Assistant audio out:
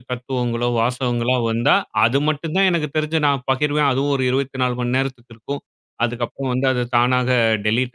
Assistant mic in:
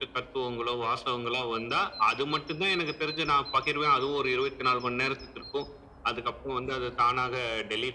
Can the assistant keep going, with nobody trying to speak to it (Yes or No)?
Yes